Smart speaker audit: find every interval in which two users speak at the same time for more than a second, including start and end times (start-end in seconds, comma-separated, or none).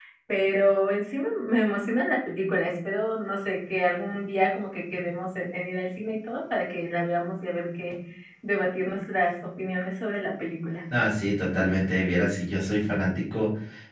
none